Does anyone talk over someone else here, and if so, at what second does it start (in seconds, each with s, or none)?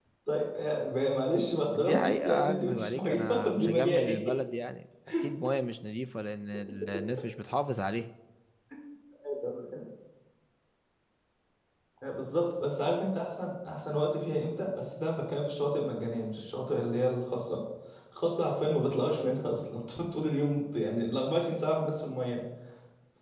1.7 s